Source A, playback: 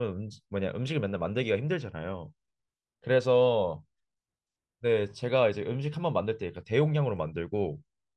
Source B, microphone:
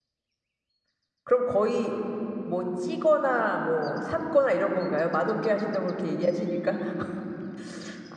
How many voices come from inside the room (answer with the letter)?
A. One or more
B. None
A